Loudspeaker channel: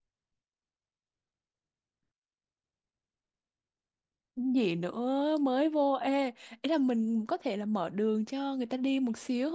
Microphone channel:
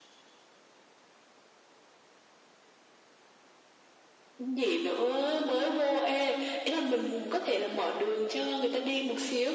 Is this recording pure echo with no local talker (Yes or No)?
Yes